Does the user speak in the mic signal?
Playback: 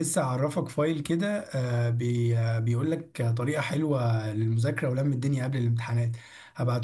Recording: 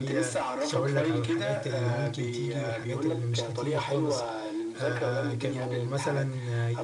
Yes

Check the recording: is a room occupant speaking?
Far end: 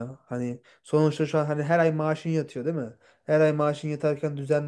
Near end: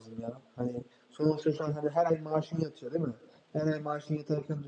No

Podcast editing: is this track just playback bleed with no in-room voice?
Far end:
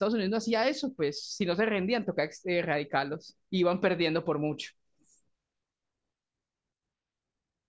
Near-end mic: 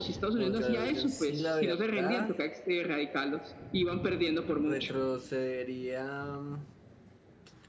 No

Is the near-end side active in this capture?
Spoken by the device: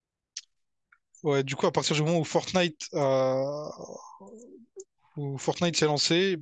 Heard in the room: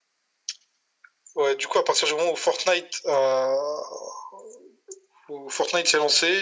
No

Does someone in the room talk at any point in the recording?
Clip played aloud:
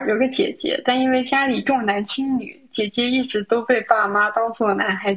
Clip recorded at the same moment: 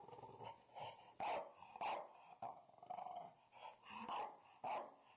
No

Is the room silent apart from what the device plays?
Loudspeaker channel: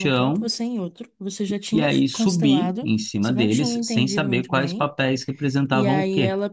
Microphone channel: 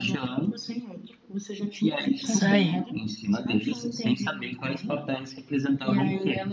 No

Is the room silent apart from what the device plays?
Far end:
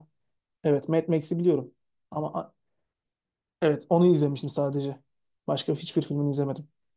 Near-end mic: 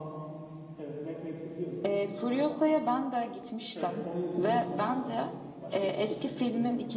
No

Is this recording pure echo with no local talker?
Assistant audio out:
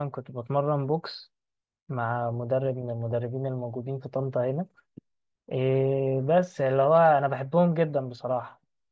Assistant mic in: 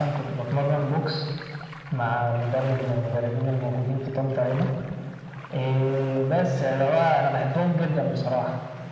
Yes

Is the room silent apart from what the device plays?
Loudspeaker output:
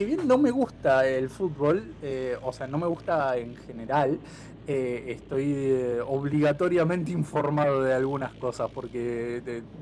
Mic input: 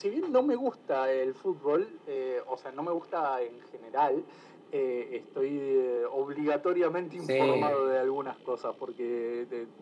No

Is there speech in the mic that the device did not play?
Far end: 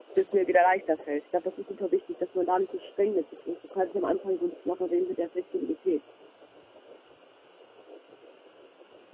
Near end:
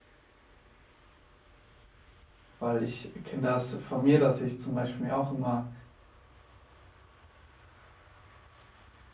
Yes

